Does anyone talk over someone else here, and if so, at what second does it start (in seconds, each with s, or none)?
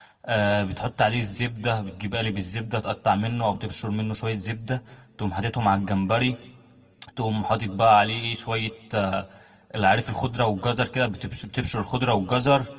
none